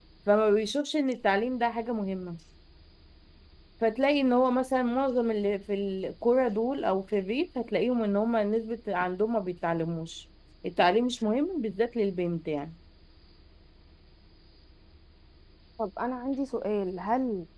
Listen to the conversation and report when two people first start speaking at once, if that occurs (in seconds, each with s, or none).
none